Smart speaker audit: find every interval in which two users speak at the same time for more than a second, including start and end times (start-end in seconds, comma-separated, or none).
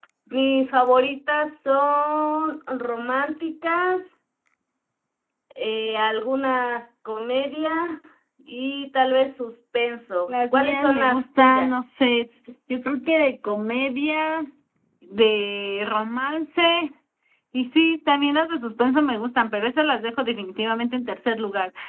10.3-11.7